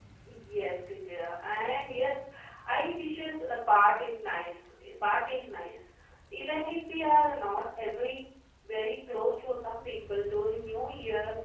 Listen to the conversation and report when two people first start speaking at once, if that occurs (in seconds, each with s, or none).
none